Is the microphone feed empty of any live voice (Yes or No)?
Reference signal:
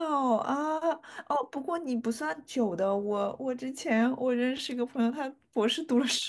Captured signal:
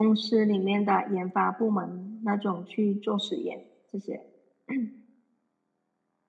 No